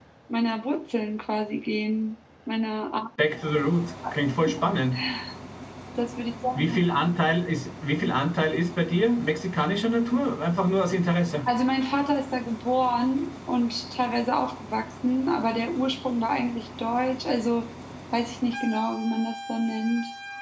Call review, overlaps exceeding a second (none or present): none